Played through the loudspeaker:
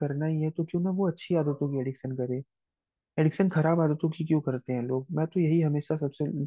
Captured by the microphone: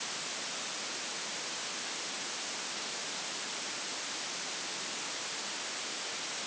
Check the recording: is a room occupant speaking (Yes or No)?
No